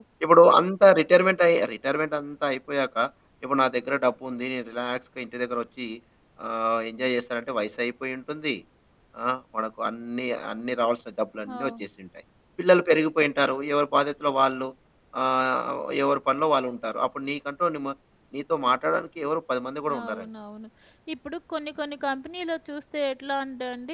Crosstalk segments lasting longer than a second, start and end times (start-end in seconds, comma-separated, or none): none